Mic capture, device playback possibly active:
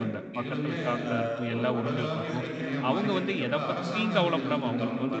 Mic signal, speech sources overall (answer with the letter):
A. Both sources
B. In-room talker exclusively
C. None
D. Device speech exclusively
A